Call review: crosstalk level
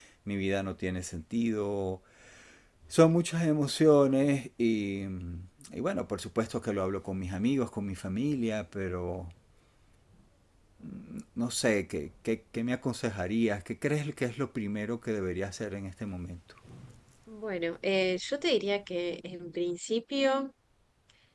none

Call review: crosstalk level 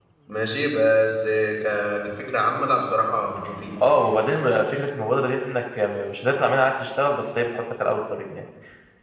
none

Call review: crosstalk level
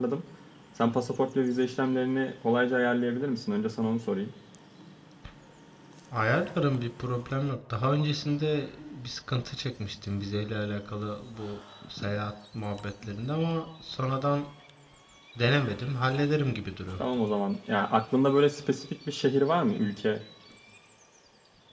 none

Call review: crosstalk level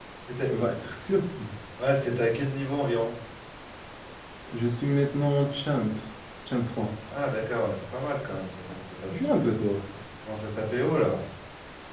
none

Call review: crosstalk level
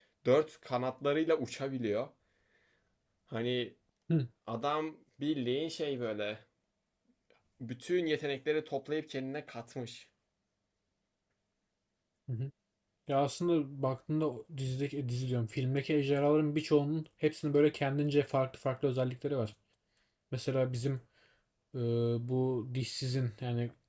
none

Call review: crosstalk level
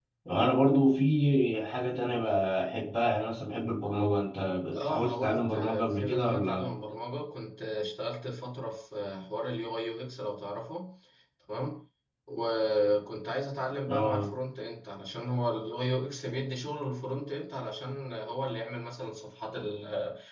present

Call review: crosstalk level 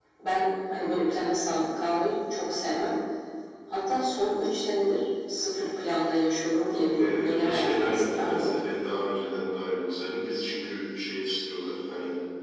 present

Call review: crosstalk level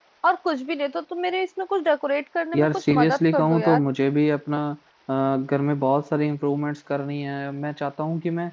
present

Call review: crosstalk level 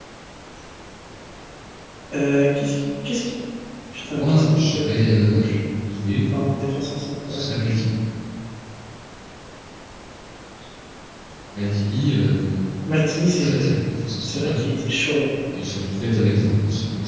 present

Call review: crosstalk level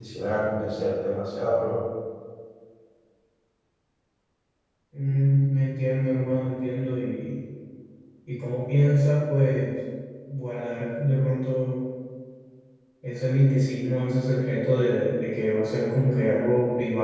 none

